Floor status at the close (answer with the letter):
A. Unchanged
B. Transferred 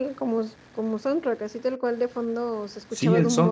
B